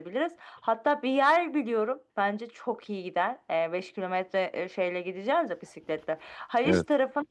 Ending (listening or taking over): listening